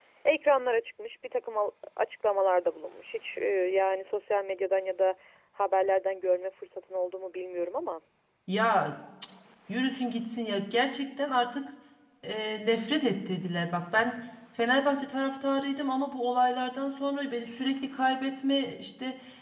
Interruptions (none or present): none